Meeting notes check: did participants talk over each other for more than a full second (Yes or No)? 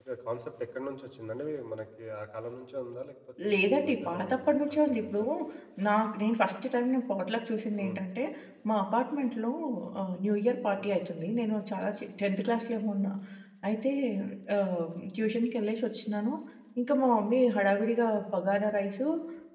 Yes